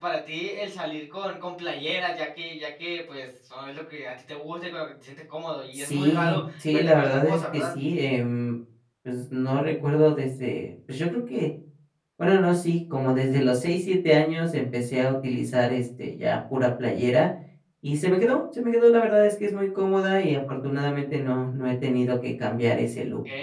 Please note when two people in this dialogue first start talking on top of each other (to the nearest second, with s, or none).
6 s